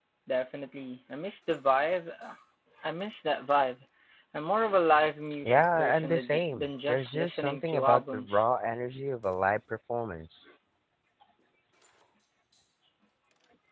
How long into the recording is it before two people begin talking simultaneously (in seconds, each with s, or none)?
5.4 s